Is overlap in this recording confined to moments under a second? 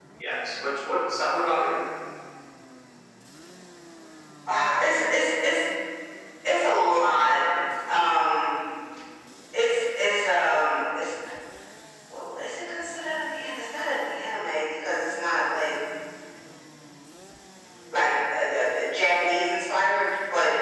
Yes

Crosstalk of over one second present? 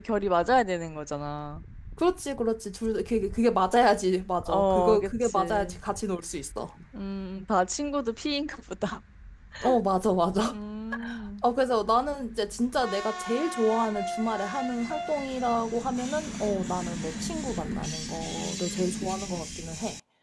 Yes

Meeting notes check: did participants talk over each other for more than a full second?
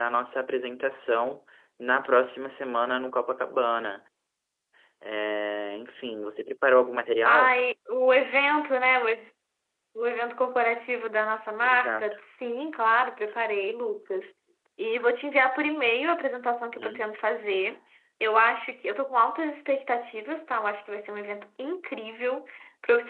No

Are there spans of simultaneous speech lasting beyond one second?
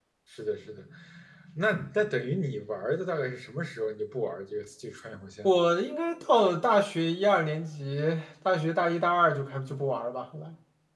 No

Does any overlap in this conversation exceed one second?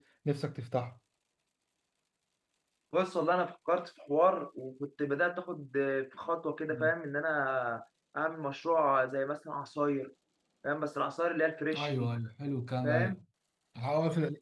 No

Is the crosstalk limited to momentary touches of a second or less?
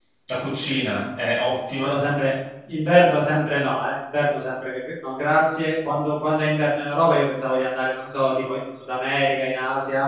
Yes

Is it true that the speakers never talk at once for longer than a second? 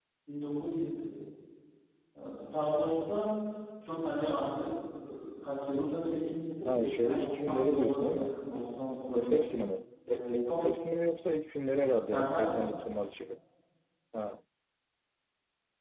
No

